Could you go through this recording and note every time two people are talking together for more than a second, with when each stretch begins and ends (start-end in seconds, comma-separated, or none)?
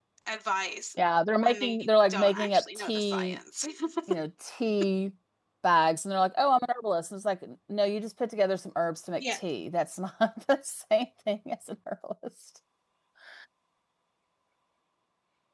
1.4-3.4